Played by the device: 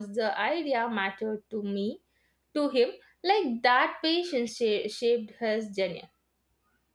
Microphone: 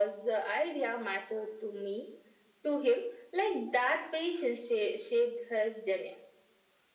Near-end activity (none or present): none